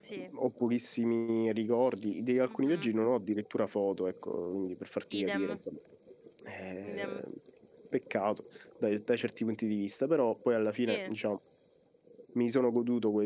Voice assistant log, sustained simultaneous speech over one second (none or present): none